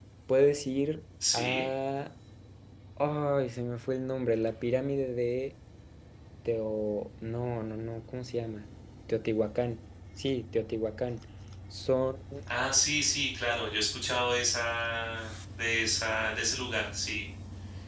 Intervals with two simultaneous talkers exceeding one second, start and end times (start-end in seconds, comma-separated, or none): none